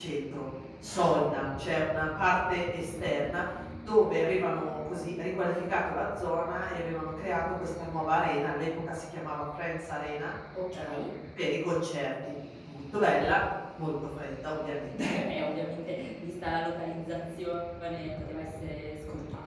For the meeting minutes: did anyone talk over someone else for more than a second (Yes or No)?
No